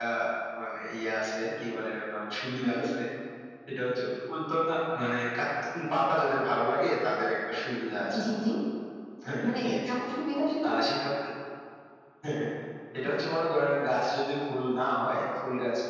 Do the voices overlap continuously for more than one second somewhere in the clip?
No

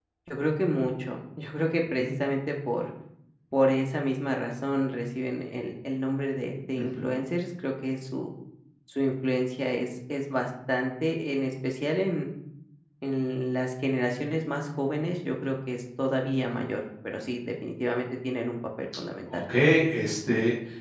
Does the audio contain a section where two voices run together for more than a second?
No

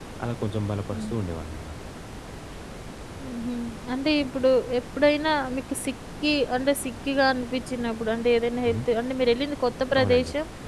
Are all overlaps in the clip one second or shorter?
Yes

